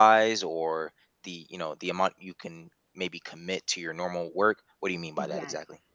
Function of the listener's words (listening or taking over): taking over